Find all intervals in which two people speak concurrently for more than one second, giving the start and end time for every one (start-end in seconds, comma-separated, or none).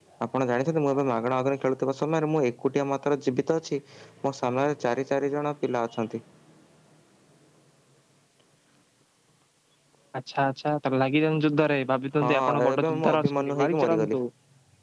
12.2-14.1